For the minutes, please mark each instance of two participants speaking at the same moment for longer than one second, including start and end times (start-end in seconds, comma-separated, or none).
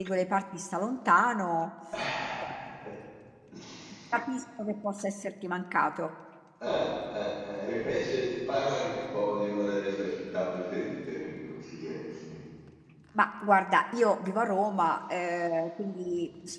none